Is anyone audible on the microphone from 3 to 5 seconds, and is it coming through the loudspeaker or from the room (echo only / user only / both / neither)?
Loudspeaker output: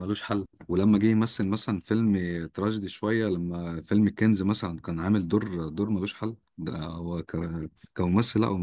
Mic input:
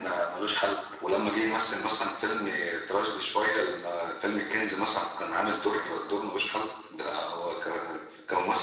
echo only